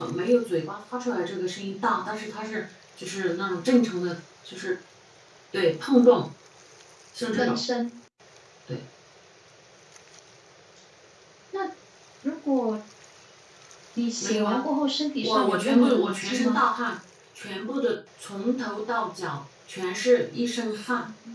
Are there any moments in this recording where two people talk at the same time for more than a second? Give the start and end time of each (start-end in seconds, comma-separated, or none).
15.2-16.6